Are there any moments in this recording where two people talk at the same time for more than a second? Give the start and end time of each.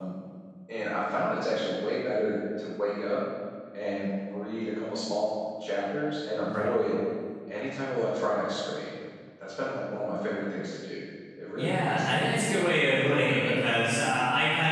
11.6-13.7

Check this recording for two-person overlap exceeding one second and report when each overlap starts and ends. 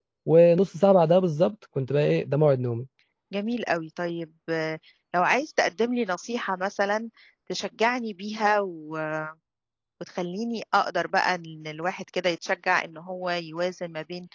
none

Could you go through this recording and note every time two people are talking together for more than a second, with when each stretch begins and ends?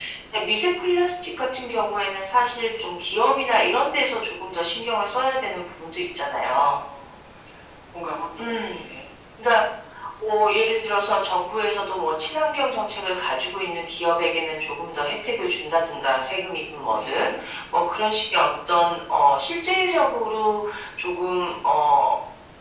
none

